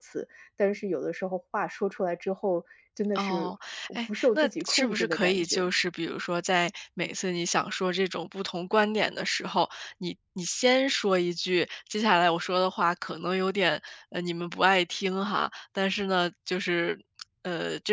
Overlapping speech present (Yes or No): Yes